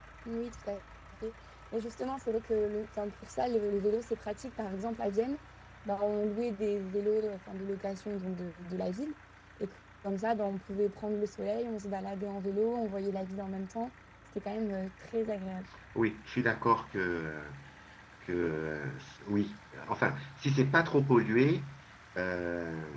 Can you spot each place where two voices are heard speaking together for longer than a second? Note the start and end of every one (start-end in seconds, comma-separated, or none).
none